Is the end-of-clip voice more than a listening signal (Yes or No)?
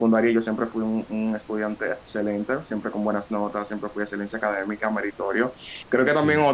No